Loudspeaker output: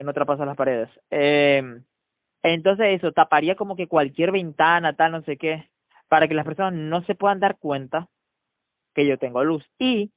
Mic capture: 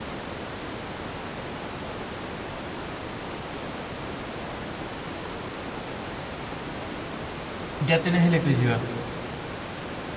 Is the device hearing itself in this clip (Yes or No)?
No